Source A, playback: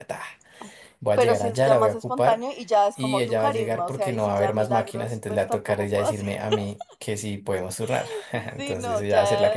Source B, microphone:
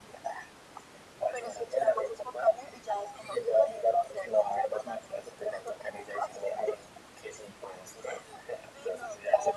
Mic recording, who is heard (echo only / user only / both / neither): echo only